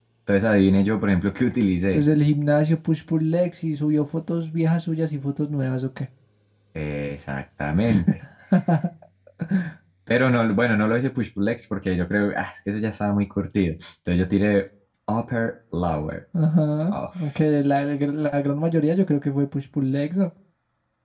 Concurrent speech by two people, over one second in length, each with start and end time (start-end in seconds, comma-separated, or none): none